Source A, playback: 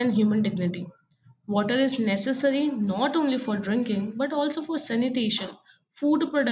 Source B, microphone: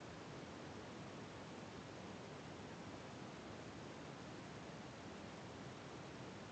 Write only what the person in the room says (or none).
none